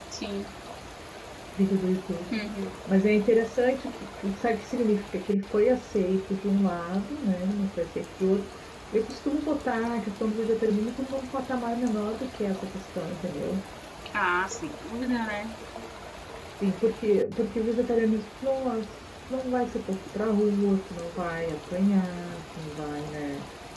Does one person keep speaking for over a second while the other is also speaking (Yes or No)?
No